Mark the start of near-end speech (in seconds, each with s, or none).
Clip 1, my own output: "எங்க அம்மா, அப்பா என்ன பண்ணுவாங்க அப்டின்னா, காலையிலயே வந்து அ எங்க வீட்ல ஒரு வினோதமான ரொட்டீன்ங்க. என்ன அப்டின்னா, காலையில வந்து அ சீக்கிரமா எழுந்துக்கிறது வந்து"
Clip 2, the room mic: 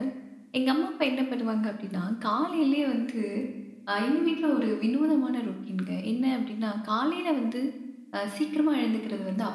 none